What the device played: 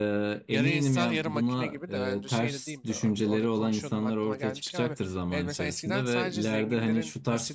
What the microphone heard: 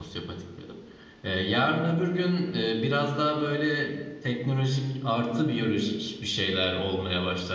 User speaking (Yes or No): Yes